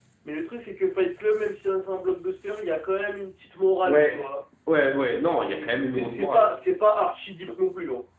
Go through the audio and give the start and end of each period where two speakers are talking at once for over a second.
5.2-6.5

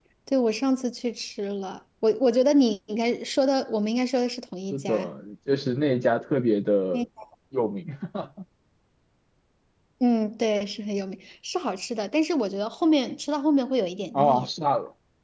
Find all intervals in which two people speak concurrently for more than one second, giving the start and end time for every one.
none

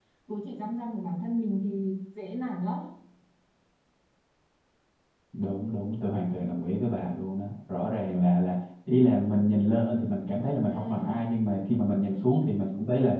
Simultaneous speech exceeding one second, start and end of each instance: none

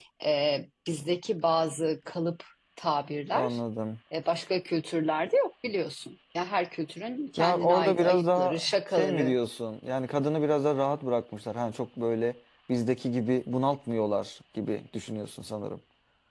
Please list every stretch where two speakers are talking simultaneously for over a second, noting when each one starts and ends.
7.4-9.3

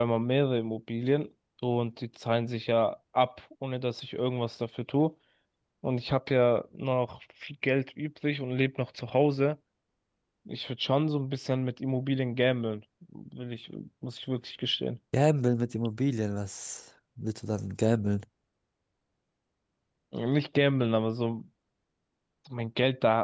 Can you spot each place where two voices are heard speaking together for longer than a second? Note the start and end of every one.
none

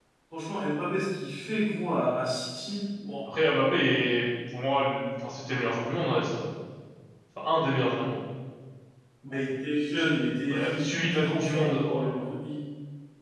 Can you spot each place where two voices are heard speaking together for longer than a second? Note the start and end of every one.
10.5-12.2

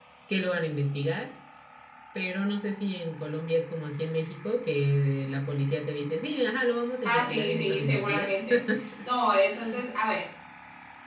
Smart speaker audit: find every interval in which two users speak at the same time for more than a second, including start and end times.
7.0-8.3

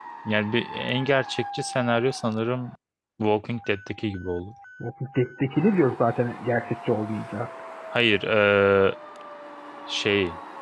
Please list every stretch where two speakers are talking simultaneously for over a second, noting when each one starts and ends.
none

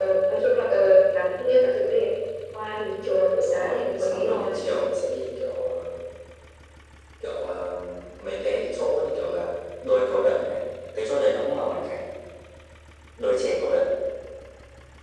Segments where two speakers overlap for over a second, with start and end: 3.4-4.6

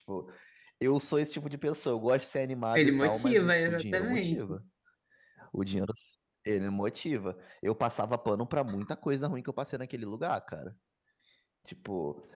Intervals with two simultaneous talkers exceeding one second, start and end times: 2.7-4.6

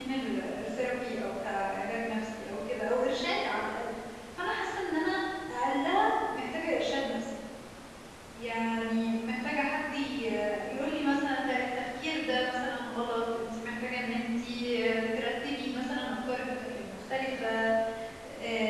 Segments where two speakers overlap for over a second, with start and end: none

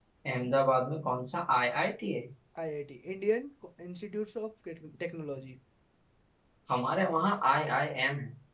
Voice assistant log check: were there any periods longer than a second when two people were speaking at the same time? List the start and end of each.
none

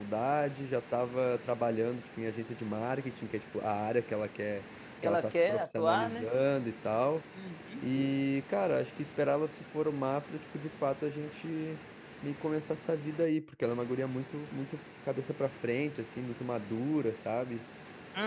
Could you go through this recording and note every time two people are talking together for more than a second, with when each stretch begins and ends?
5.0-6.3

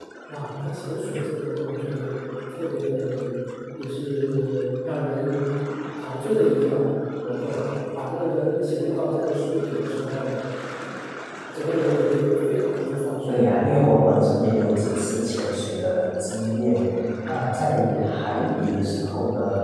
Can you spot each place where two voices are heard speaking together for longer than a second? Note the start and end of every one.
none

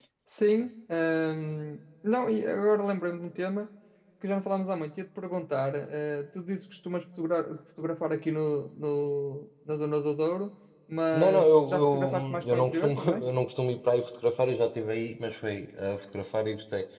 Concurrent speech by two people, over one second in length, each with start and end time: 11.1-13.2

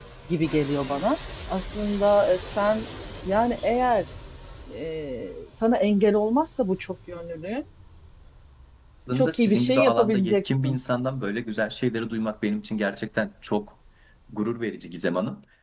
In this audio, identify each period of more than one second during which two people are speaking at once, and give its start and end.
9.1-10.8

